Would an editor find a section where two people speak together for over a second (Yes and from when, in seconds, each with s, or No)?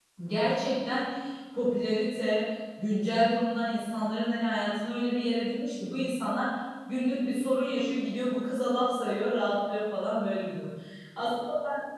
No